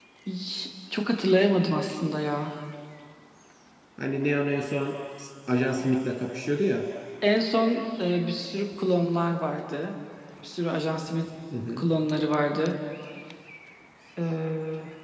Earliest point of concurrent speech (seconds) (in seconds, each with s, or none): none